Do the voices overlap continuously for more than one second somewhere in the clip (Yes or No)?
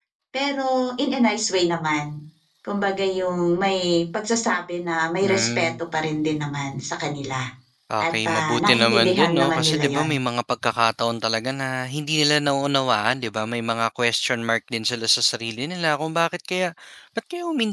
Yes